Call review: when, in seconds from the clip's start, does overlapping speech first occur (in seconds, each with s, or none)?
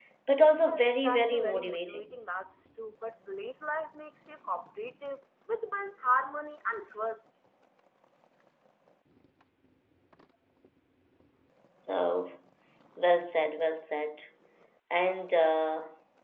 0.6 s